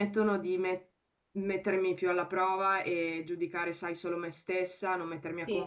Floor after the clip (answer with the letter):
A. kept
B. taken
A